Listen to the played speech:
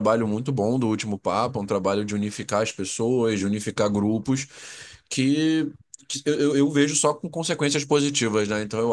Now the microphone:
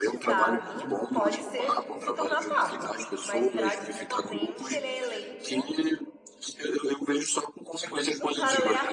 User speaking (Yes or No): Yes